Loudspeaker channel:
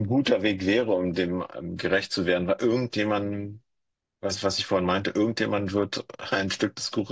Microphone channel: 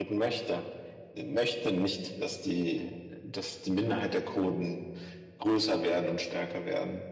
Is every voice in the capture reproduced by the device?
No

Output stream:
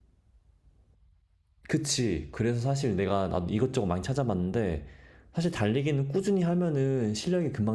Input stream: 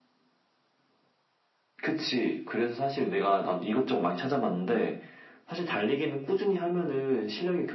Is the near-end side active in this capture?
No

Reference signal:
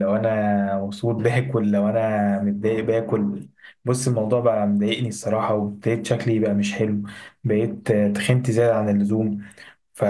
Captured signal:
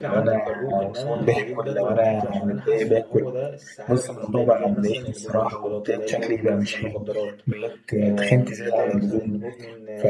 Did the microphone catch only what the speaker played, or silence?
No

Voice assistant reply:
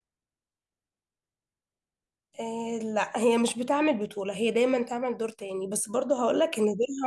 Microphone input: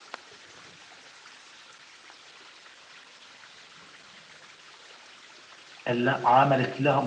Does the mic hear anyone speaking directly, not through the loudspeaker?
Yes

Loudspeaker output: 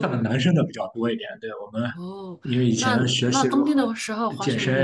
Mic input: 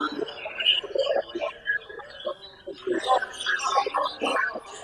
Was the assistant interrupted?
No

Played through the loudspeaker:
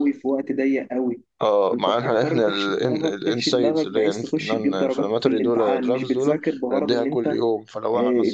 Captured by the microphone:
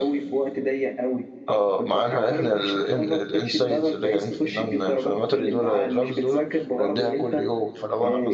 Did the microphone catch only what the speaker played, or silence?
Yes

